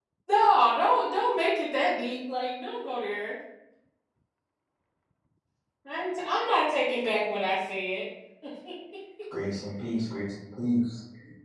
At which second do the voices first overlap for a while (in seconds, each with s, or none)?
none